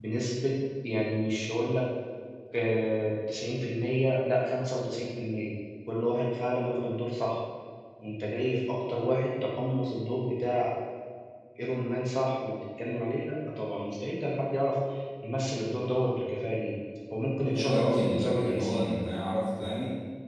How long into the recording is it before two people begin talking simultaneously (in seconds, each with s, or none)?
17.5 s